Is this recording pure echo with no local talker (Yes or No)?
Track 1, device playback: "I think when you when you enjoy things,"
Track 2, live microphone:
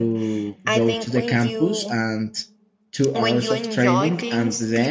No